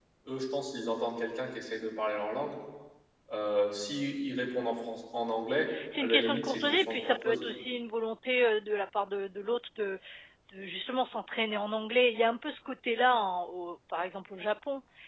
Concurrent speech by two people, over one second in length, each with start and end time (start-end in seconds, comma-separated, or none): 6.0-7.5